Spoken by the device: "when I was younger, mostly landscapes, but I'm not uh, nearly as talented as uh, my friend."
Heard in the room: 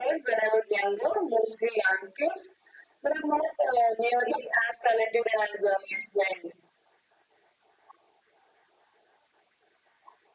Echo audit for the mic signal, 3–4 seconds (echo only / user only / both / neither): echo only